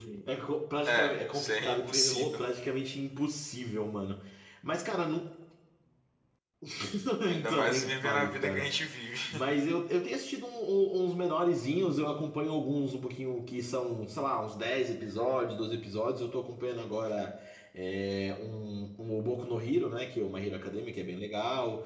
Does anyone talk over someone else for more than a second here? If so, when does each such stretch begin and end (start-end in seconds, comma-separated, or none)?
0.8-2.4, 7.4-8.7